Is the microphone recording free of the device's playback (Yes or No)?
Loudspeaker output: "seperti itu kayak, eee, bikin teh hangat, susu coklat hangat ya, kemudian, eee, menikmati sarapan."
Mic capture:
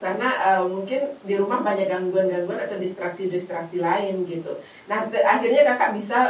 Yes